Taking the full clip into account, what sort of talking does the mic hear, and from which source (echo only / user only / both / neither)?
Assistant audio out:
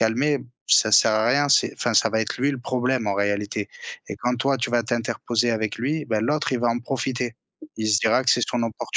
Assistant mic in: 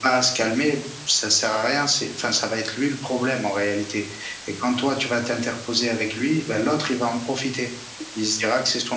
echo only